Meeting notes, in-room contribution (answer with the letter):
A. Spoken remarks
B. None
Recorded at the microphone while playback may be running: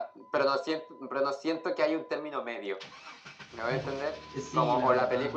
A